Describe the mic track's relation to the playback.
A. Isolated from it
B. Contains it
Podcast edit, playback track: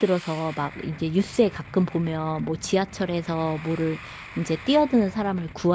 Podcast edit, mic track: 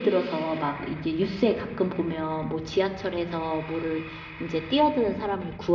B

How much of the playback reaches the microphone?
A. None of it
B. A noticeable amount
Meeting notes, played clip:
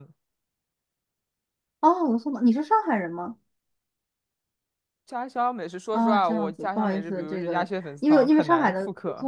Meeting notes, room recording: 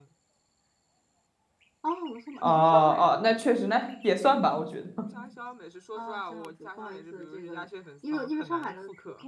B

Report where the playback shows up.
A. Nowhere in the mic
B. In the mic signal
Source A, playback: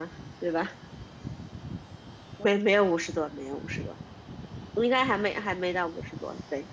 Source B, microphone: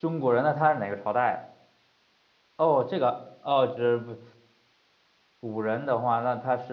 A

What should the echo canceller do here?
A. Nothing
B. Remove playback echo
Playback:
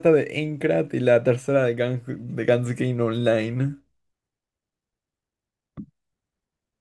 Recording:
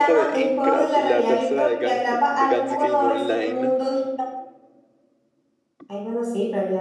B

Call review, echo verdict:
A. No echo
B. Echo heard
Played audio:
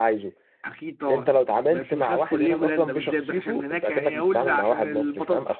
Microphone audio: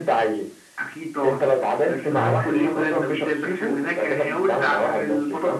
B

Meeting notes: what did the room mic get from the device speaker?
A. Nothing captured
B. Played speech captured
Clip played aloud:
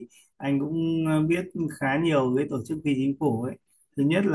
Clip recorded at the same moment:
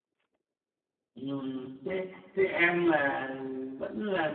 A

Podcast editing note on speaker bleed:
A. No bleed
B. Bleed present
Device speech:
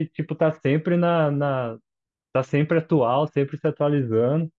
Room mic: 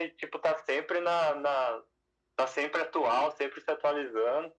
B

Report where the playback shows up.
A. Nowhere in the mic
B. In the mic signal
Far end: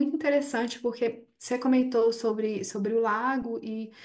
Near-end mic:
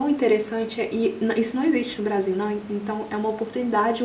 A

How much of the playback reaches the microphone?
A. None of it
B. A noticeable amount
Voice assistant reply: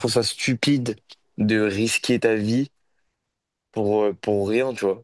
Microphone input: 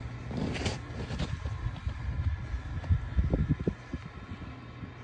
A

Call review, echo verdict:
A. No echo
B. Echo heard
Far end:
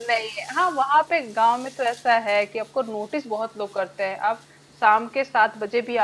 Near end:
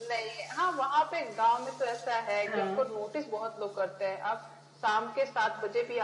B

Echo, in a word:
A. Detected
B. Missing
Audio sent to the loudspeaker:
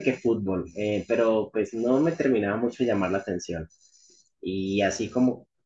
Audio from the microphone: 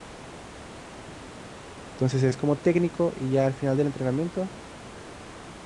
B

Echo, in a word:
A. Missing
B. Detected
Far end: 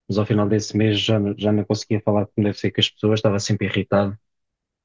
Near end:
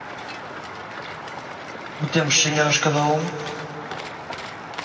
A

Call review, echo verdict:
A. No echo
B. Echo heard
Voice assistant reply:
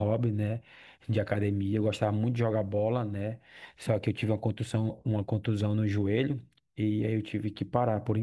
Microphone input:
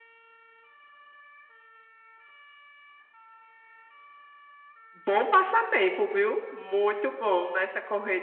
A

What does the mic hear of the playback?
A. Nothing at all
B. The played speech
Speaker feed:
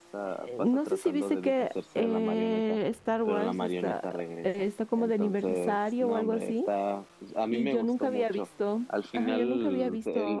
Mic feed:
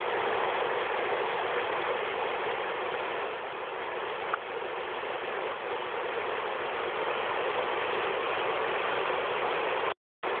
A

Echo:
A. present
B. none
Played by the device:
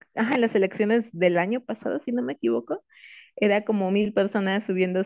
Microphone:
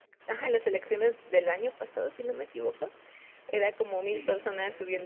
A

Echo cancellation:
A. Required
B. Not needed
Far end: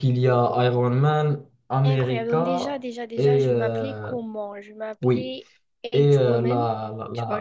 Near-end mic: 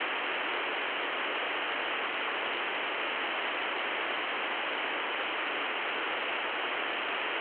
B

